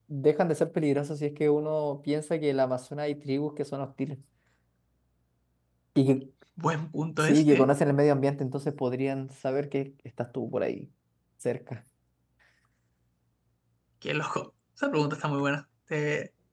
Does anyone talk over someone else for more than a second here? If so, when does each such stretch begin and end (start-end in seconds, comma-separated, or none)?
none